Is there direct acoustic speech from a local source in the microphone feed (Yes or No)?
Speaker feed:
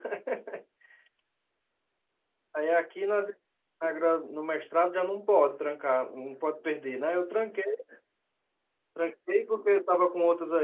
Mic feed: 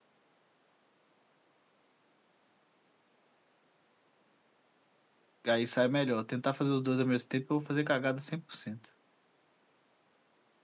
Yes